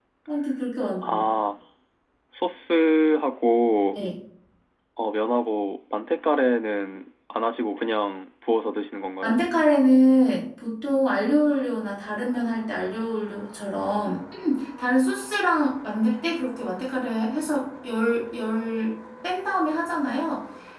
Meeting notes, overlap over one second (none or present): none